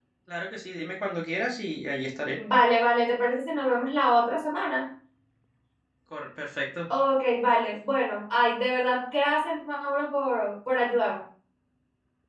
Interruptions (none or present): none